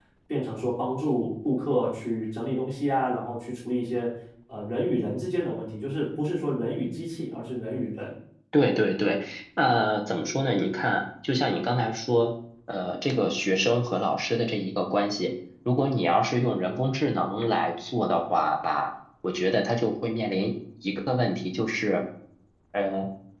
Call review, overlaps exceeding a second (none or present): none